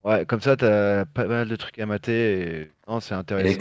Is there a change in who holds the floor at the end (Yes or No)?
Yes